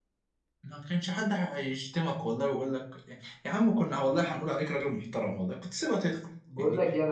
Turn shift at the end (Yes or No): Yes